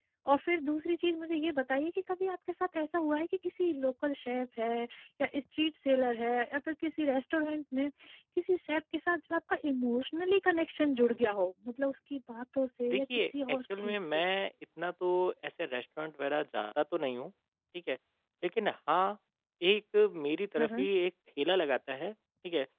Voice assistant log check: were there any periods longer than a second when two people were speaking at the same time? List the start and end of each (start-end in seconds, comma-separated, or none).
12.8-14.2